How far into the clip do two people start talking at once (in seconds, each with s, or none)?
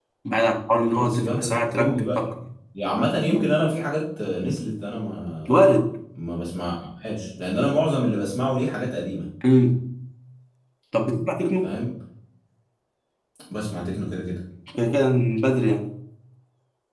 0.9 s